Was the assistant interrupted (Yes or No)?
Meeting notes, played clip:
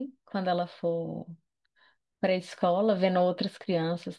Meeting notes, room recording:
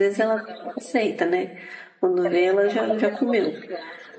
Yes